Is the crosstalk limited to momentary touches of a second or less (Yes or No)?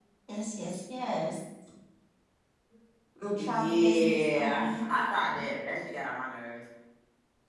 No